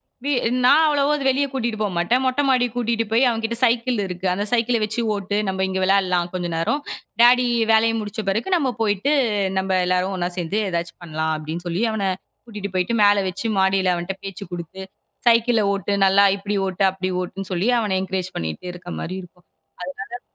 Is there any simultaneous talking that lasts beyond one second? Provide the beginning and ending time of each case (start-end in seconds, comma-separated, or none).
none